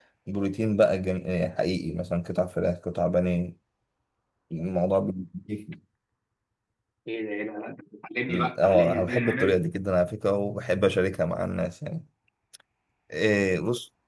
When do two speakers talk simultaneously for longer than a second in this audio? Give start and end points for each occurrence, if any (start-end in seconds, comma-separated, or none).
8.3-9.7